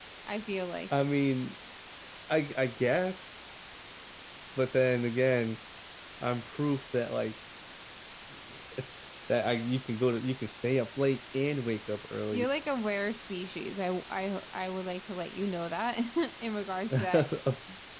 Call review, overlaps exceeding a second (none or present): none